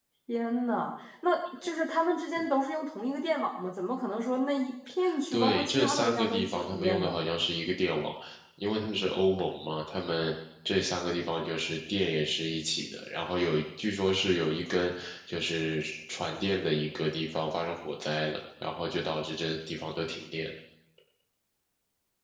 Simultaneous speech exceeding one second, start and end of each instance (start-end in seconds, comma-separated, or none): 5.3-7.2